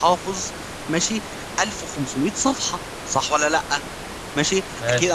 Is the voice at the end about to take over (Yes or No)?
No